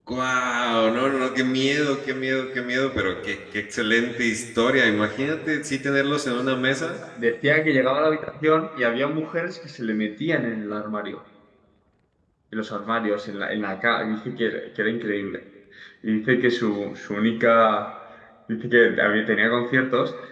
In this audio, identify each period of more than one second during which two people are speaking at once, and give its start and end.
none

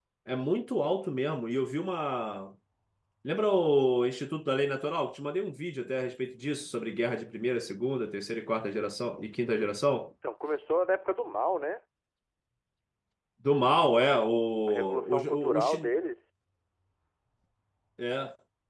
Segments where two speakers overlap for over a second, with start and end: 14.7-15.9

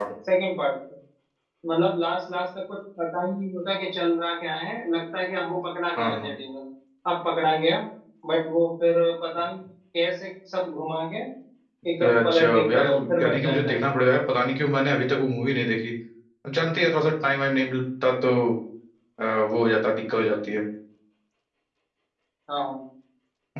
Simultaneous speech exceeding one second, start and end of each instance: 12.0-13.8

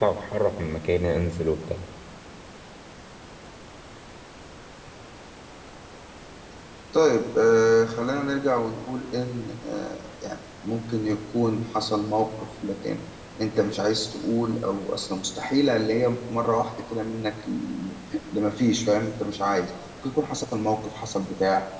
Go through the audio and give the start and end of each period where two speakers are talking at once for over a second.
none

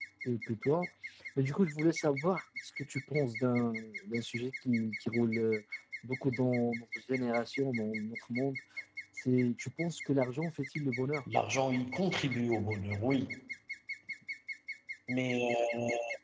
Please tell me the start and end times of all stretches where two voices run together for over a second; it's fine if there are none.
none

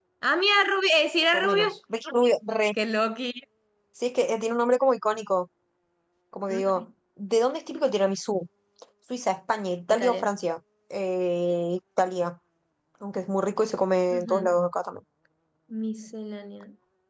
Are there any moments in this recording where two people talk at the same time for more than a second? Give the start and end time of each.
none

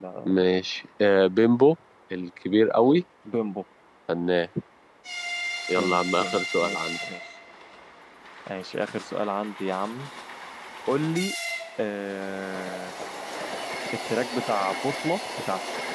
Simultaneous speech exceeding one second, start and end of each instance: 5.7-7.0

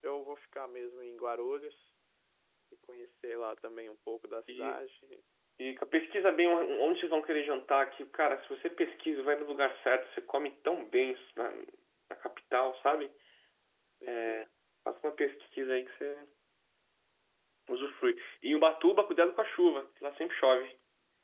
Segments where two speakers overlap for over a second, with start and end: none

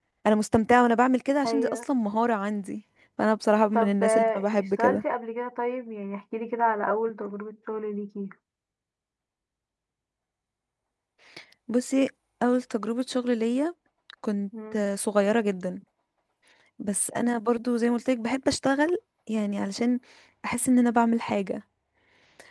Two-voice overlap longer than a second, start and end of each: 3.7-5.0

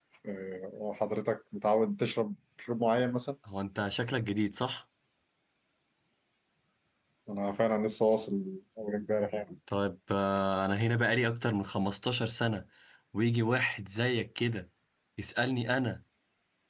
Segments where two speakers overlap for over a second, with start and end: none

